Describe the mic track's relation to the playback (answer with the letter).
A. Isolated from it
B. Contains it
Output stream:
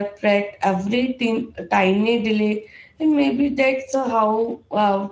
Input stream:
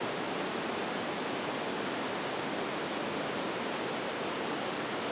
A